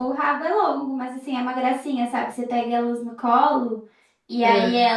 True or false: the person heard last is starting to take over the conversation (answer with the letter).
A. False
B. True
A